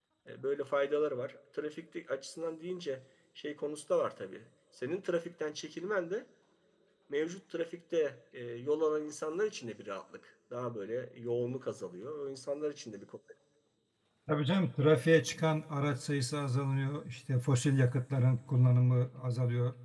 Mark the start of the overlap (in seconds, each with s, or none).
none